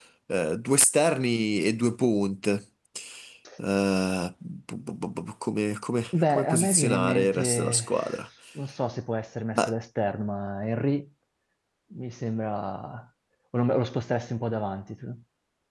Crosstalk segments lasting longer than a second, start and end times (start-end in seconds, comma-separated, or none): 6.3-7.9